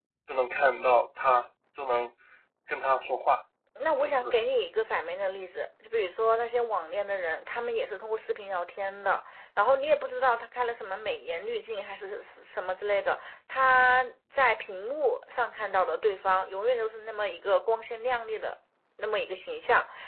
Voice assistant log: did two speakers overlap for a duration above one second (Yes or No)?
No